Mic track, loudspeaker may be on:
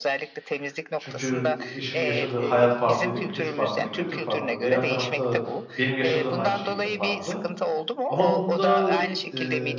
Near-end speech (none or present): present